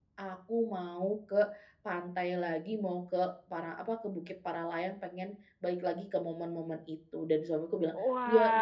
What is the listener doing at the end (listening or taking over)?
taking over